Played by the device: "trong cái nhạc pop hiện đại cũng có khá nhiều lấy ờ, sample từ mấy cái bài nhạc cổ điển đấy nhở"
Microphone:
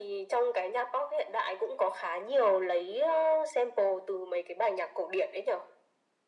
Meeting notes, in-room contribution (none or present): none